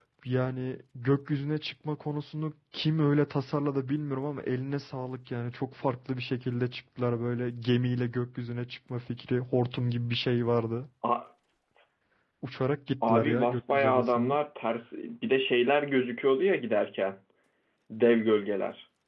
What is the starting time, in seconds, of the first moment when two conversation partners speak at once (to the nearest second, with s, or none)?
13 s